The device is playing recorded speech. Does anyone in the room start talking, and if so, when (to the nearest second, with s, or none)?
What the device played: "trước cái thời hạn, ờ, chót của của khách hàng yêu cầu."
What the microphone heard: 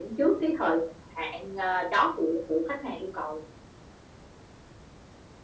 none